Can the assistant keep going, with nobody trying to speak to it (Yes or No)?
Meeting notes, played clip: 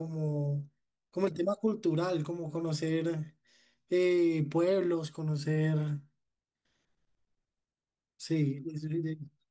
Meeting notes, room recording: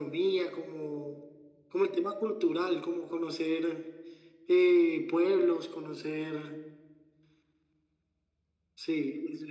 Yes